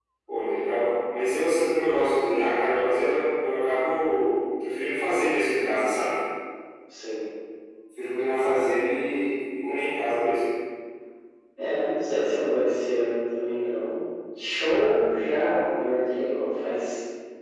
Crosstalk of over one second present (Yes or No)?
No